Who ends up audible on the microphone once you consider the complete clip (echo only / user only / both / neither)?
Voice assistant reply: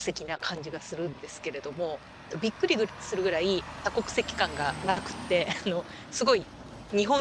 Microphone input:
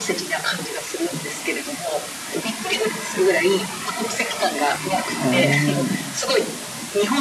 both